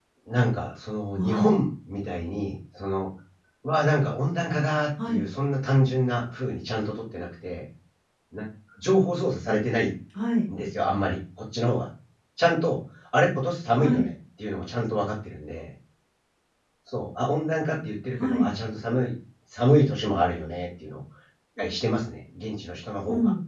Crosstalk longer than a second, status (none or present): none